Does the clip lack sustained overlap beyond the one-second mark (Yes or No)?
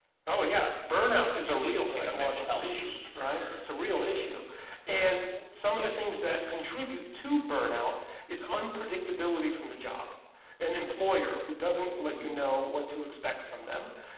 No